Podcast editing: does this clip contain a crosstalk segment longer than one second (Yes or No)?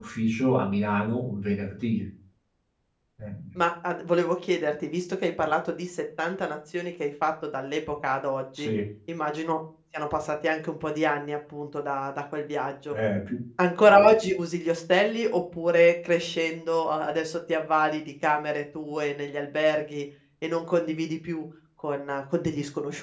No